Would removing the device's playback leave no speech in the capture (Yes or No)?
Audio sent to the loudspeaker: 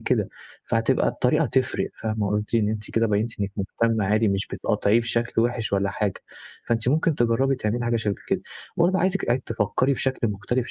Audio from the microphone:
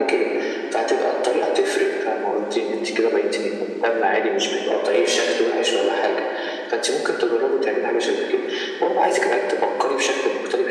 Yes